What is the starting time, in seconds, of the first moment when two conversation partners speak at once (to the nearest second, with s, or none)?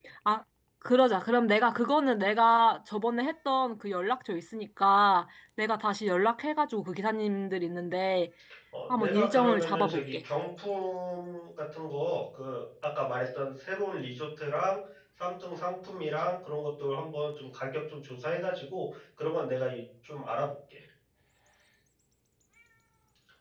9 s